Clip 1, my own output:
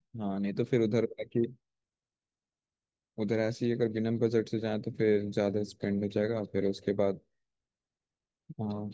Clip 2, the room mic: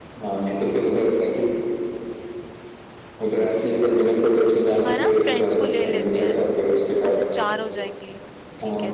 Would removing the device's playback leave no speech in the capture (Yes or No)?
No